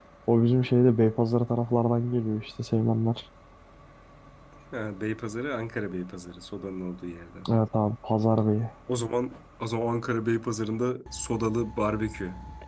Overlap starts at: none

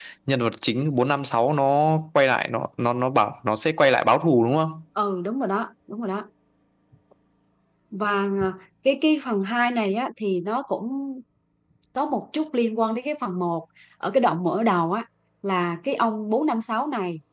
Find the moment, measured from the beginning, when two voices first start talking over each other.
none

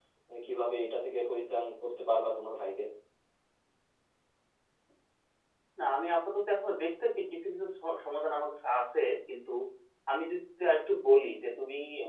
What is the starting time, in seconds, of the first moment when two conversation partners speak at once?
none

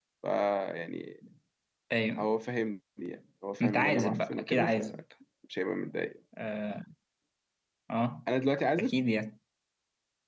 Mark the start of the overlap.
3.6 s

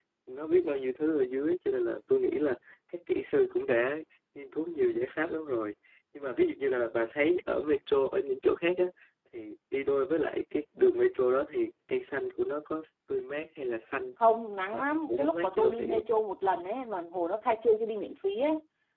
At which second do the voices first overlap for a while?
14.7 s

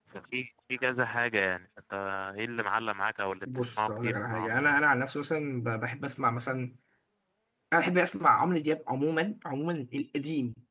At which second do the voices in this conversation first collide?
3.5 s

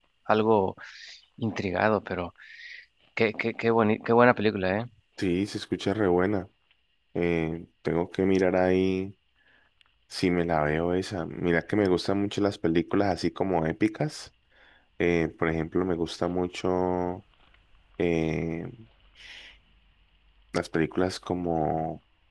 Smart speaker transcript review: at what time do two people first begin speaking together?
none

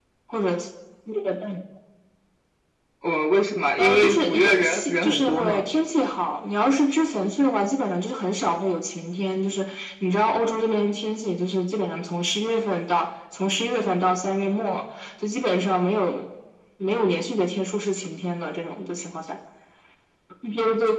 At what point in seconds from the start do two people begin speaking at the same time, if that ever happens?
3.8 s

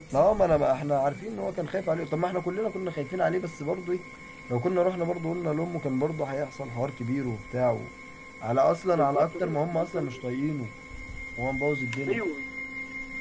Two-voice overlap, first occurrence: 8.9 s

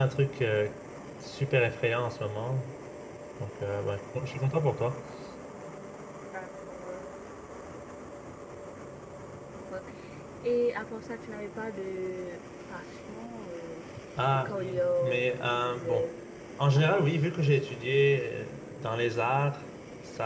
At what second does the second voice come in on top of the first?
14.3 s

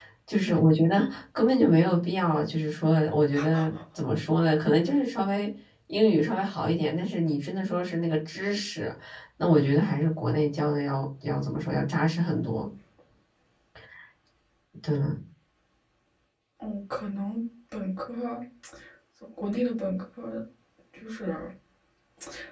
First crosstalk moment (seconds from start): none

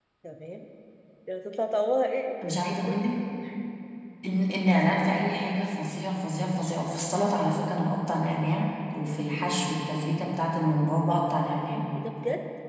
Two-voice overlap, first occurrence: none

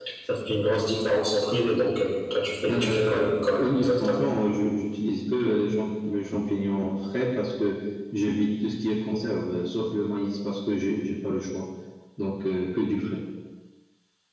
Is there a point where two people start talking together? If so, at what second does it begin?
2.6 s

